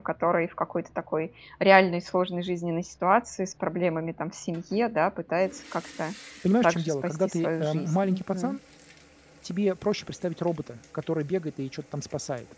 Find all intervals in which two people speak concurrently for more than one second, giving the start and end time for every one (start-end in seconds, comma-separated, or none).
6.6-8.6